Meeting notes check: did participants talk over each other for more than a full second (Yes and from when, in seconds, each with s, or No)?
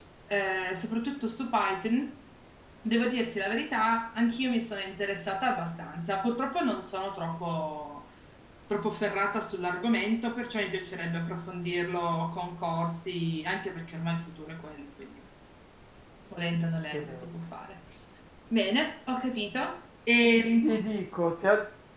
No